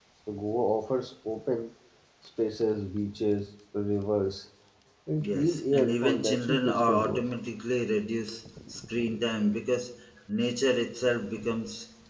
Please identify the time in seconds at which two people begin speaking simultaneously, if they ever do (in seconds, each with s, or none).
5.2 s